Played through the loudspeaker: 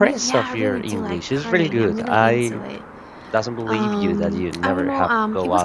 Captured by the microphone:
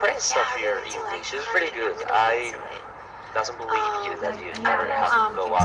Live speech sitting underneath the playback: Yes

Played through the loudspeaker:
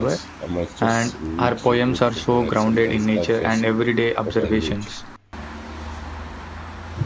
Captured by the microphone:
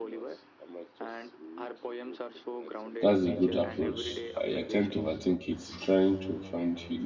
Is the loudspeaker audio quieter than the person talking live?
Yes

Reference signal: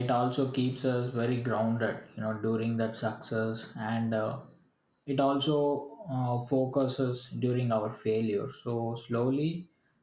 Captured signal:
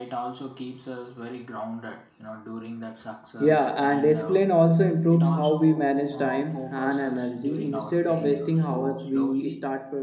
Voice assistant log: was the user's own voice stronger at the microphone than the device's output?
Yes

